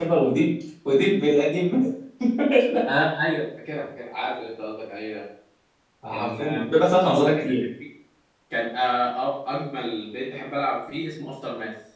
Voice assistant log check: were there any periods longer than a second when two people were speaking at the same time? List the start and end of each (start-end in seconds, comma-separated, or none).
6.1-7.5